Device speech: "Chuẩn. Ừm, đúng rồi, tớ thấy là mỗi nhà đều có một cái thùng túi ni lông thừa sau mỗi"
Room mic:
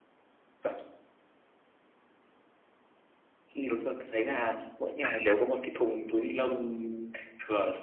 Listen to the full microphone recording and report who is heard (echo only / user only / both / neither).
both